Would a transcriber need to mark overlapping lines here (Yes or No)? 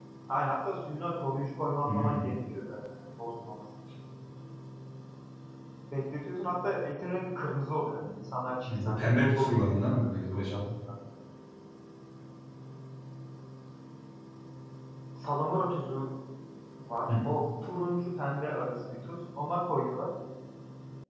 Yes